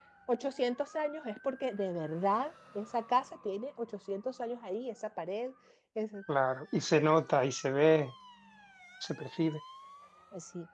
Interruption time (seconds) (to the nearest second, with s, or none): none